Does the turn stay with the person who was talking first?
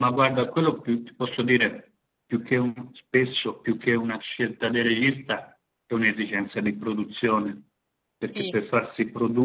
Yes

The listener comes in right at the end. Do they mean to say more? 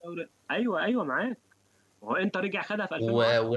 Yes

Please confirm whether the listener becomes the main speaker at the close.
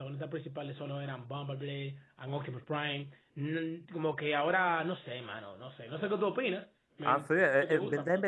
Yes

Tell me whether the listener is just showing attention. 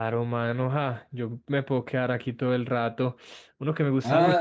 No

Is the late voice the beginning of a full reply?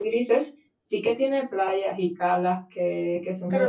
Yes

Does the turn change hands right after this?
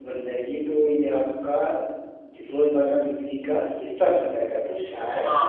Yes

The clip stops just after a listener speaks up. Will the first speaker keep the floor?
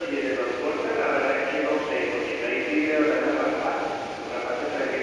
Yes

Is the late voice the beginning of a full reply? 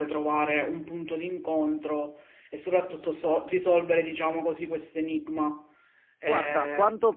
Yes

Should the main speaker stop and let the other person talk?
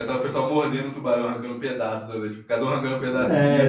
Yes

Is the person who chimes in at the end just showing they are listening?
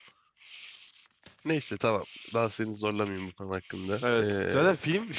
No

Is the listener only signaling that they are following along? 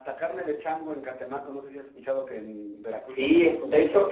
No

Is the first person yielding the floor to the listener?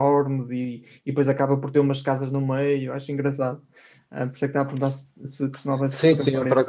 Yes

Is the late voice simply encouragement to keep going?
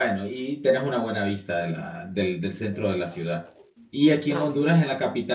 Yes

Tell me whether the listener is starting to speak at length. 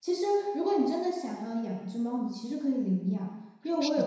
No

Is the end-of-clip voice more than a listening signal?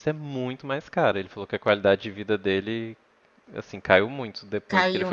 No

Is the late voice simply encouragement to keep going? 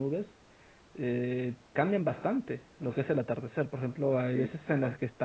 Yes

